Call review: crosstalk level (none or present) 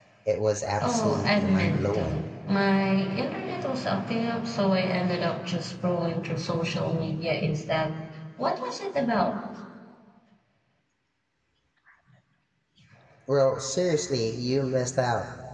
present